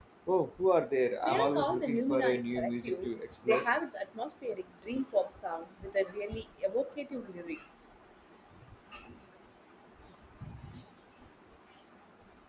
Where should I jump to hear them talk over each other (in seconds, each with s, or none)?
1.2 s